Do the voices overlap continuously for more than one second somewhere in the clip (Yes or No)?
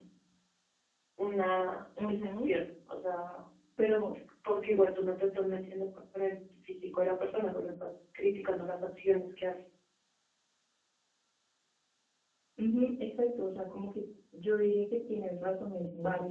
No